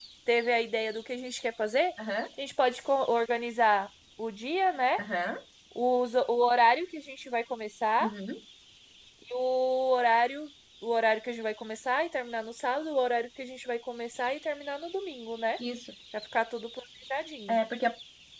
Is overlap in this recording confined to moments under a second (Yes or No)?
Yes